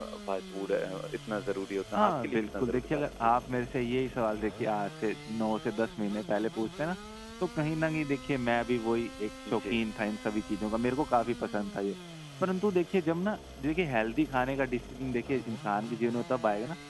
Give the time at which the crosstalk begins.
2.0 s

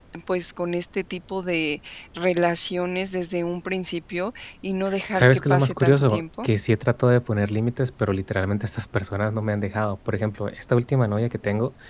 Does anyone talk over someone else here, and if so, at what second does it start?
5.1 s

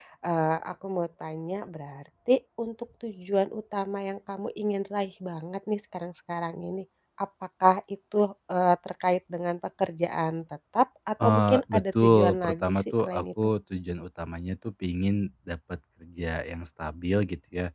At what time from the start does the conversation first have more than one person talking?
11.2 s

